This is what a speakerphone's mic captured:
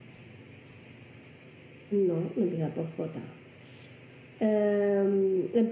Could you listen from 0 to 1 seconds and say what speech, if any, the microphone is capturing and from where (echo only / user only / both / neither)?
neither